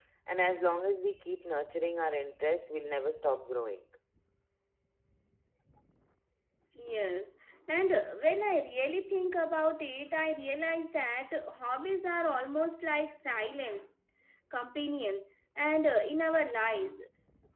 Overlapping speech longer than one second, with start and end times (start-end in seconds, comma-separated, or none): none